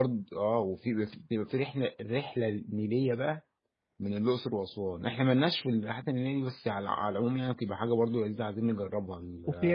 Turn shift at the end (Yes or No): Yes